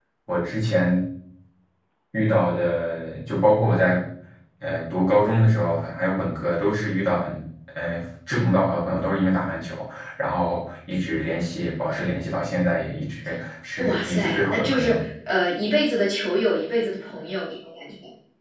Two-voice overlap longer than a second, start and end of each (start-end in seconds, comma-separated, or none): 13.8-15.0